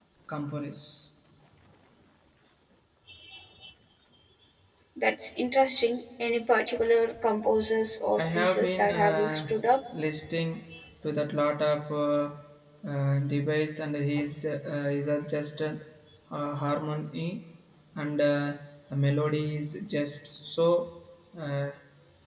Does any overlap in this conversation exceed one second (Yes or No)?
Yes